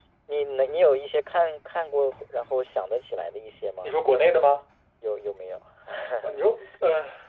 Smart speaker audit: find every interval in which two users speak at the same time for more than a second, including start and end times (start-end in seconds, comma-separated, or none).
none